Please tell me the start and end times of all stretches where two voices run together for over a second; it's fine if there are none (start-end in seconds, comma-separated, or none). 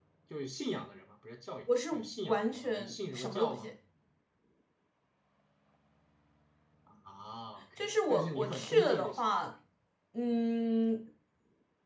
1.9-3.7, 7.8-9.2